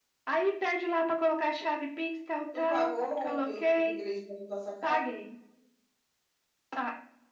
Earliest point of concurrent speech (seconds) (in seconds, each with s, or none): 2.5 s